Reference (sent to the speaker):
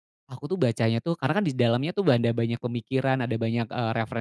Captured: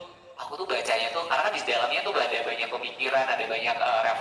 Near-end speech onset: none

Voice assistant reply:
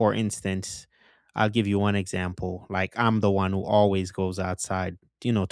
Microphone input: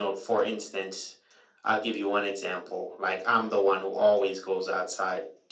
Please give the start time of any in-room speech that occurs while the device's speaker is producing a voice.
none

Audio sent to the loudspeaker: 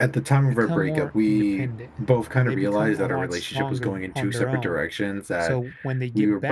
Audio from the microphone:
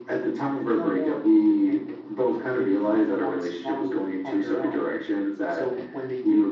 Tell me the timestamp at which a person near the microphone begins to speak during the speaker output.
none

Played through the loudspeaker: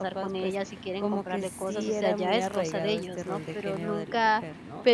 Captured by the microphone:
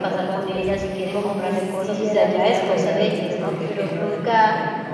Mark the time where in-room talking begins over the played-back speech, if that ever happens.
none

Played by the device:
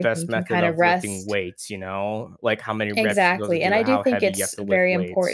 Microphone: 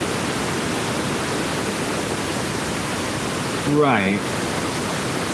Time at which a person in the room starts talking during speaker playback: 3.6 s

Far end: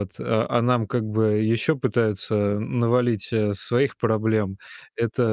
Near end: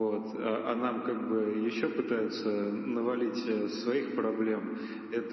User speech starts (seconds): none

